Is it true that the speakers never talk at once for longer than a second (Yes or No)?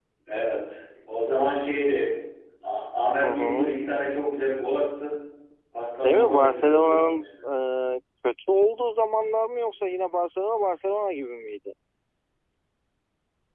No